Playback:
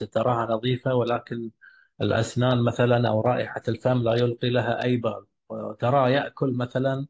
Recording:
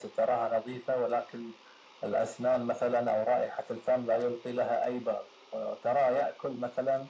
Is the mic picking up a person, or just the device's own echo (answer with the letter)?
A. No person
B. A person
A